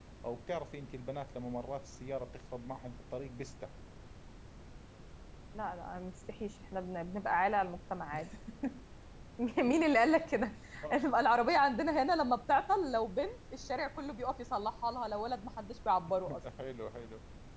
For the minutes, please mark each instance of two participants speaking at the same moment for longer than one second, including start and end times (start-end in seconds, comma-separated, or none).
none